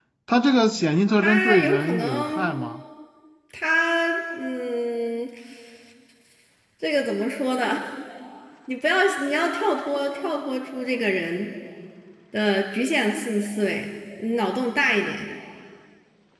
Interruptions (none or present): present